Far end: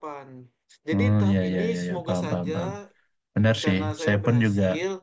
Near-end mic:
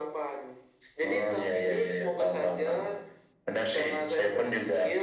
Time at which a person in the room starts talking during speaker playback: none

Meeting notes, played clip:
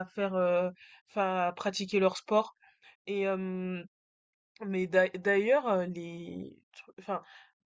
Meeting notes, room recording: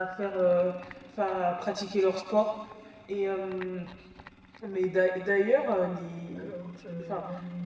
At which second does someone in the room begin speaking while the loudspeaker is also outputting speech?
6.3 s

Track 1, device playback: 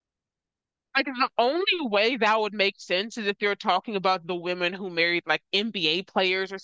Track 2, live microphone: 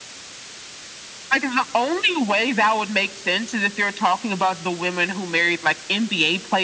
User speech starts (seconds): none

